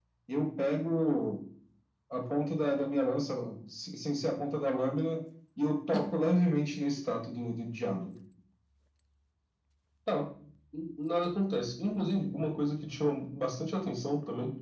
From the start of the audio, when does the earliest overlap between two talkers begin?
none

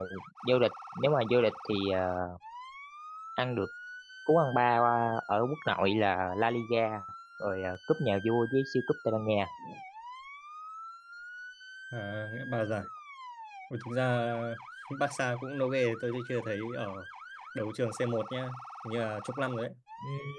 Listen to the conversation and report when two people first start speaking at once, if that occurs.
none

